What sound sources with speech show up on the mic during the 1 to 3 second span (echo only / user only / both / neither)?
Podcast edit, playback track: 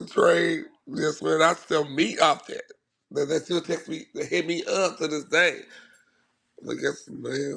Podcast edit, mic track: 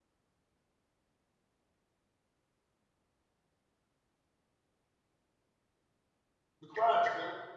neither